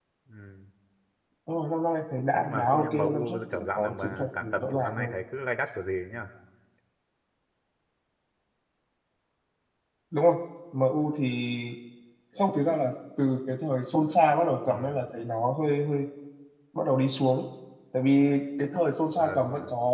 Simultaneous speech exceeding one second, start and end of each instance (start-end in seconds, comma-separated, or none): 2.4-5.1